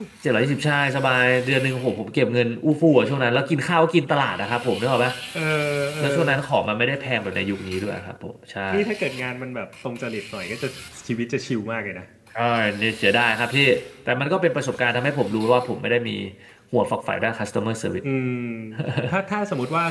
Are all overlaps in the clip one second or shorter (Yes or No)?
Yes